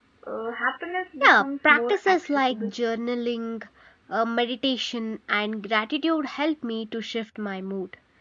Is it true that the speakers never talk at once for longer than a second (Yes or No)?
No